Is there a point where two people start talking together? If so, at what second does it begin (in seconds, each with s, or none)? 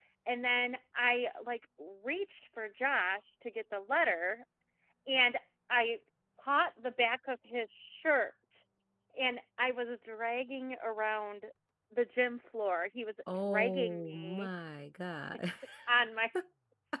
13.3 s